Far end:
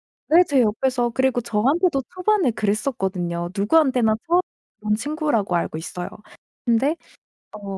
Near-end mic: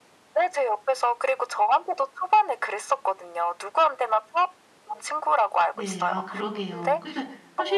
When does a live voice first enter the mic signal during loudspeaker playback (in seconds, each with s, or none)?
5.7 s